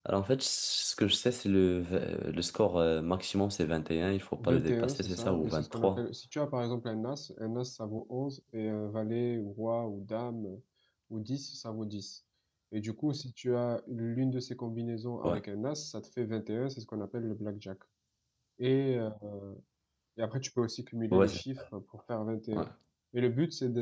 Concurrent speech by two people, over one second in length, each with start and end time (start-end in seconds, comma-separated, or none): 4.4-6.0